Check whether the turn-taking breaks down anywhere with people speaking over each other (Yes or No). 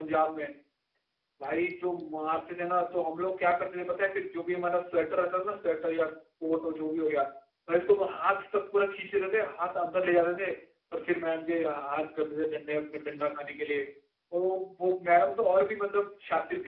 No